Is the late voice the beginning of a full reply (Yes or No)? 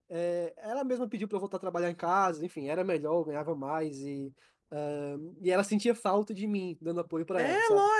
Yes